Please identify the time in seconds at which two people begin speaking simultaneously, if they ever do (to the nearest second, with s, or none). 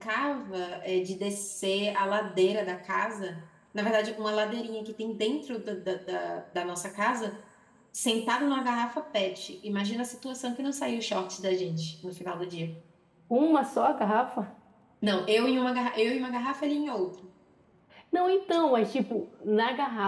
none